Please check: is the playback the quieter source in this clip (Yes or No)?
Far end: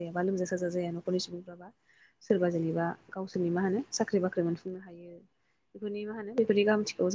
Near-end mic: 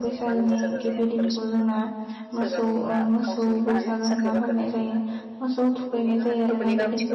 Yes